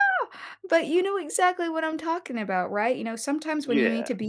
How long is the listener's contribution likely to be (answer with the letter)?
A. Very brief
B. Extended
A